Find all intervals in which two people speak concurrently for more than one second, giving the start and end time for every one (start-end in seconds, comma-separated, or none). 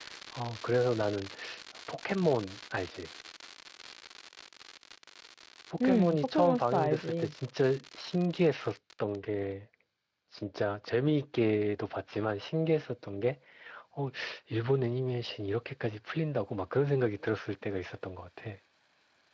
5.8-7.3